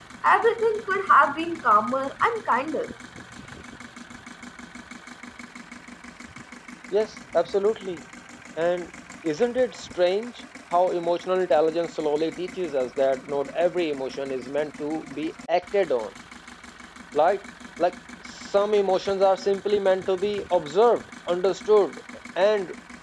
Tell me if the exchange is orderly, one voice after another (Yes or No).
Yes